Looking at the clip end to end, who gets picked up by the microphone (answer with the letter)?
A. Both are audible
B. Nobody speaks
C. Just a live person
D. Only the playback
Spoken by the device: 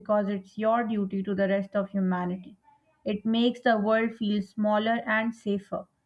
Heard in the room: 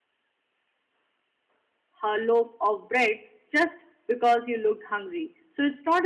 C